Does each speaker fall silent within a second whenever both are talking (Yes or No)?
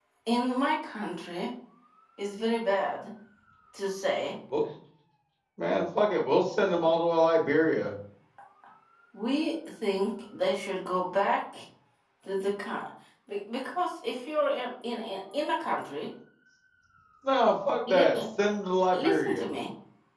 Yes